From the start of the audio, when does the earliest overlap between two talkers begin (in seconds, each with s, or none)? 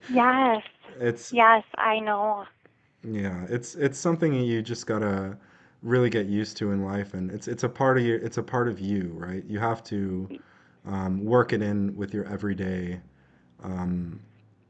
none